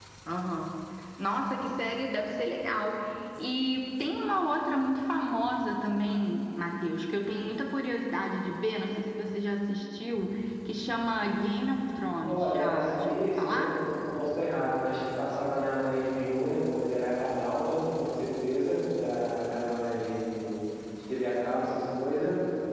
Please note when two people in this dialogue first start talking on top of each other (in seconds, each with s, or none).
12.2 s